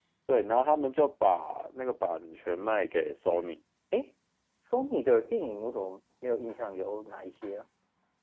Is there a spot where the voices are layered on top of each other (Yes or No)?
No